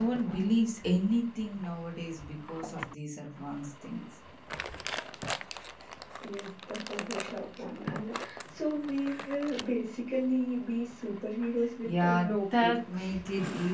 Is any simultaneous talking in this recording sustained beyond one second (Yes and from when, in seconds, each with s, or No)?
Yes, from 11.8 s